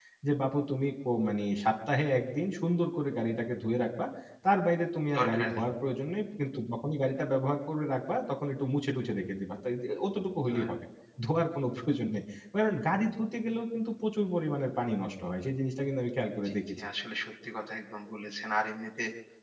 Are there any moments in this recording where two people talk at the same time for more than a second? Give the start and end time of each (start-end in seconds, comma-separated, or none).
none